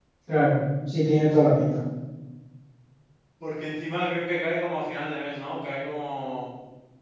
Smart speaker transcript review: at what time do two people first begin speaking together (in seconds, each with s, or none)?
none